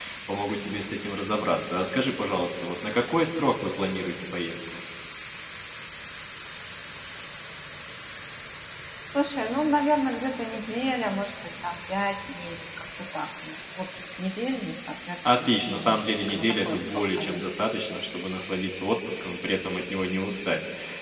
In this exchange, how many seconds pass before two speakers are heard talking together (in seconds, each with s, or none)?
15.2 s